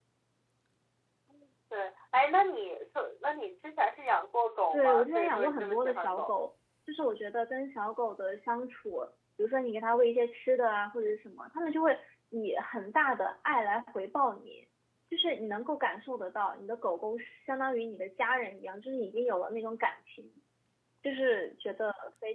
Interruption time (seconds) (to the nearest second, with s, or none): 5 s